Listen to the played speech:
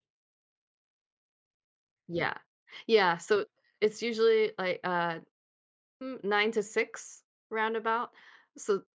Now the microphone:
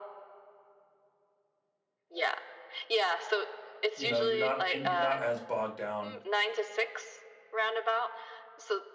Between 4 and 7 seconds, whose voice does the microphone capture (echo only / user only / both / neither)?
both